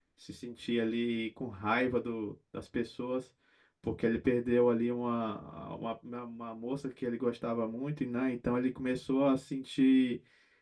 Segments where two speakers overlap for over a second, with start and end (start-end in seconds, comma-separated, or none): none